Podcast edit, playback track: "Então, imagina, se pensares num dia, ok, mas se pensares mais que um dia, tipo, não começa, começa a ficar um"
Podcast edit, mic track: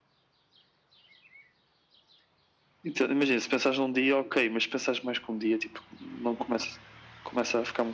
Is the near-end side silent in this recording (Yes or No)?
Yes